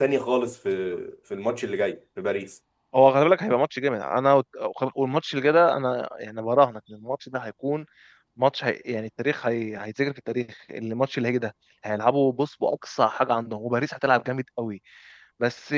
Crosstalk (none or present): none